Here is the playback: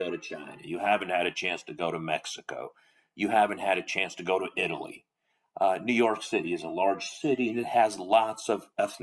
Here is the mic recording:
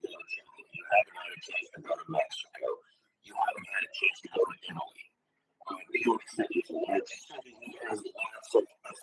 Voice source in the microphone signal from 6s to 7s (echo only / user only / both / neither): echo only